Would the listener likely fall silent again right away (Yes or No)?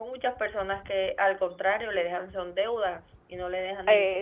No